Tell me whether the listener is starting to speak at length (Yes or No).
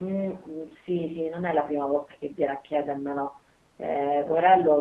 No